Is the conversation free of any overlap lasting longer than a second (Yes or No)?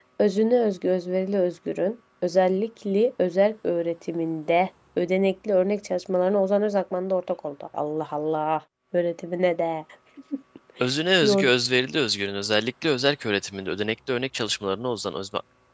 Yes